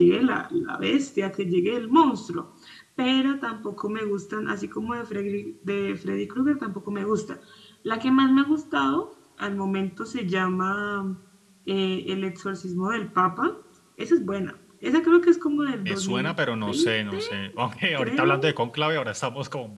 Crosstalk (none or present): present